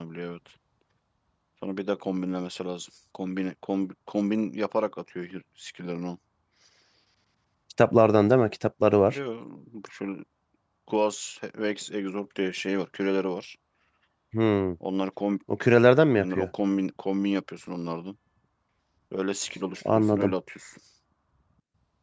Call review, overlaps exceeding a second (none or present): none